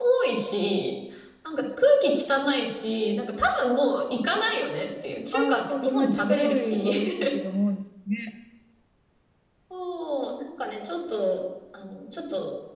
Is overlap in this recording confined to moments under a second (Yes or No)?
No